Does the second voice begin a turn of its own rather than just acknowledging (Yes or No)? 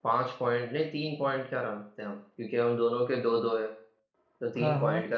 No